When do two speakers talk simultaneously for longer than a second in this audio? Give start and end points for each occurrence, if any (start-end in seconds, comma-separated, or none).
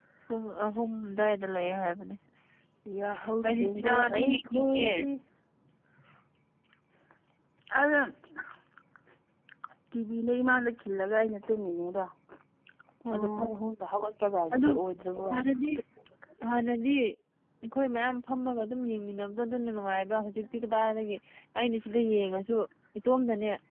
3.5-4.9